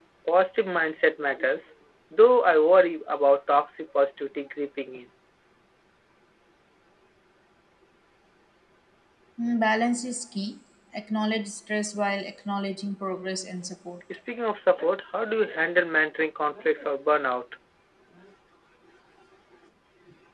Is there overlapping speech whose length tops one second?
No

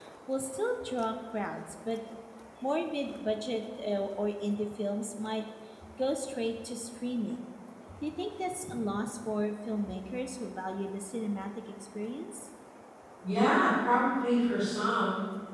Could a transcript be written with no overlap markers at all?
Yes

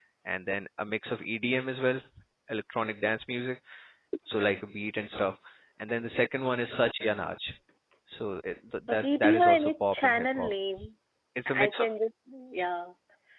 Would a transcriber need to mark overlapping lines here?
Yes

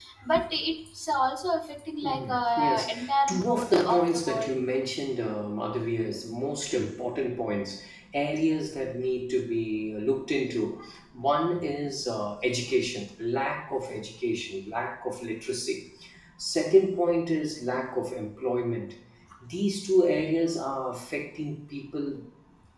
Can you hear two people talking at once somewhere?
Yes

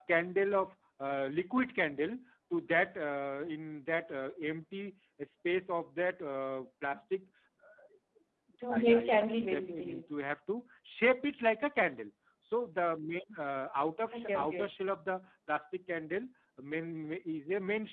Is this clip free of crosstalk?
No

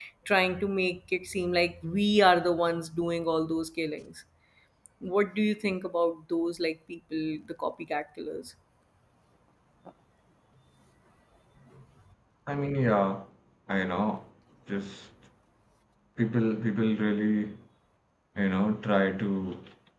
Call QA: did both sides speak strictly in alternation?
Yes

